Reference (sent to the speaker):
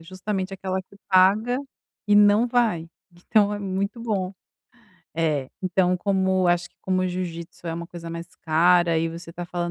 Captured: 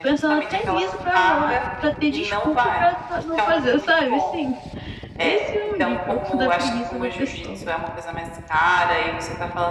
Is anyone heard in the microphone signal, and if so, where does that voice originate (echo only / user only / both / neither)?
both